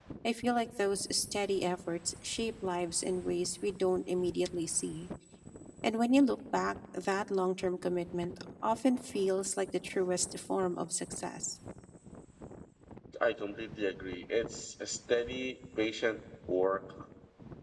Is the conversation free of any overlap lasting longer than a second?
Yes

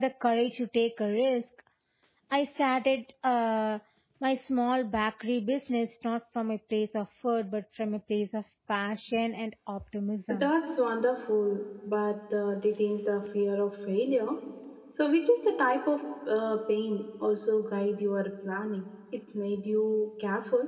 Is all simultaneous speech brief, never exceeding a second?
Yes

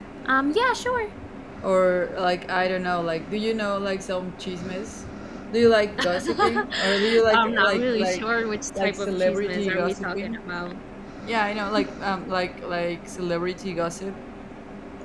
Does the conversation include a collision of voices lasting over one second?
Yes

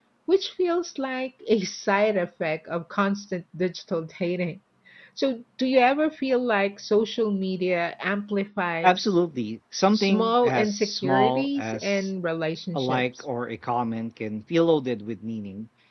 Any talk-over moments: Yes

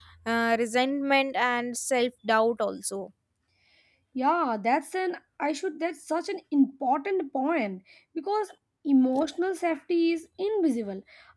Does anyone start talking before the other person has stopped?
No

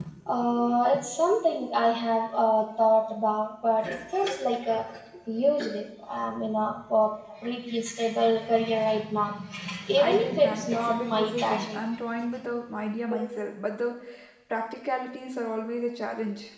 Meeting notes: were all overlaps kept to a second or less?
No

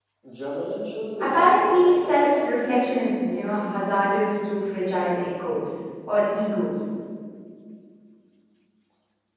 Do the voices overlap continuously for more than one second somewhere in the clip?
Yes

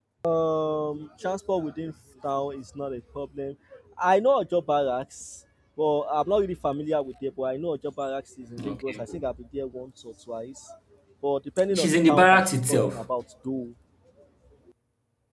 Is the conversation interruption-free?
No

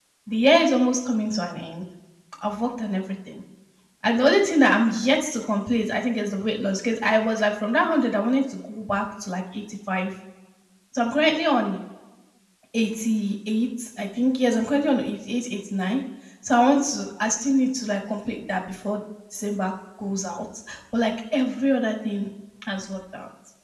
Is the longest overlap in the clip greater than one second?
No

